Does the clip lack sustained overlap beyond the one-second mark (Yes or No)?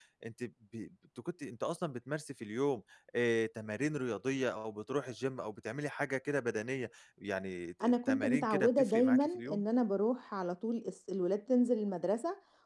No